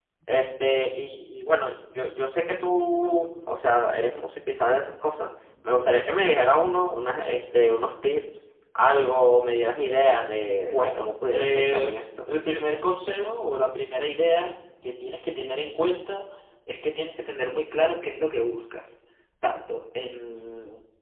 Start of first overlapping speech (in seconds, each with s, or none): 10.4 s